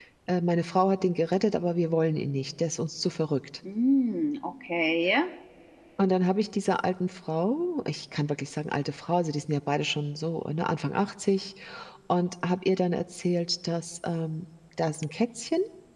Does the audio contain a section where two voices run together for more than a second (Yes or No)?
No